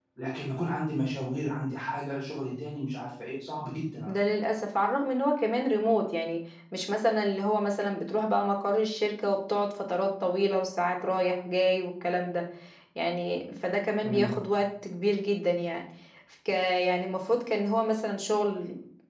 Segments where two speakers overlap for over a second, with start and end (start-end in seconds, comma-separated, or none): none